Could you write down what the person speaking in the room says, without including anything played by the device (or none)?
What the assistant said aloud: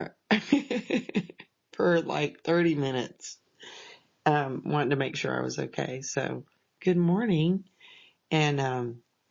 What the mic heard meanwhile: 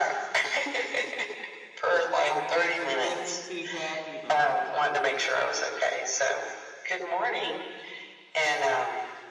I bet she wasn't too happy about that.